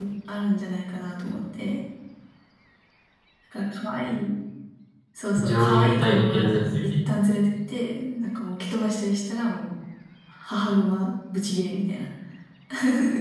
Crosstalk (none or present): present